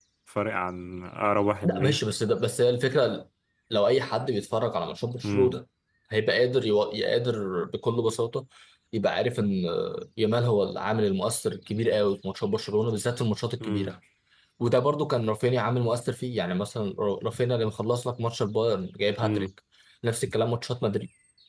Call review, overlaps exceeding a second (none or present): none